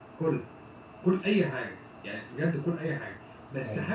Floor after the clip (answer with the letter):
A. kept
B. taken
A